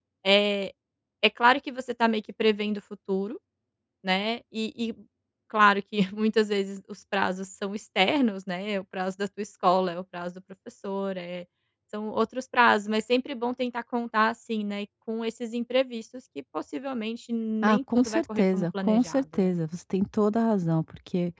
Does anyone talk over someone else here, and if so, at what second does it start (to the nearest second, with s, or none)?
18 s